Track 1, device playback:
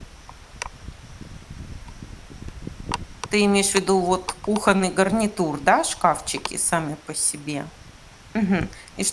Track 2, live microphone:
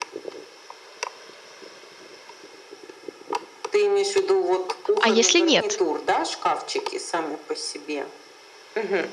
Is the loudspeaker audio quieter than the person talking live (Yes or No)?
Yes